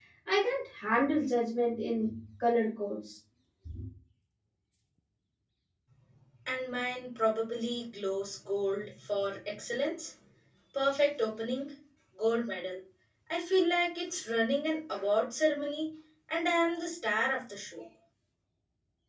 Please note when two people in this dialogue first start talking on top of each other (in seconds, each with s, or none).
none